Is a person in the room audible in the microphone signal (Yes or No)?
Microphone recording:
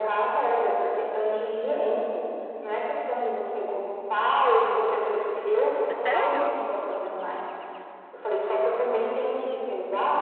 Yes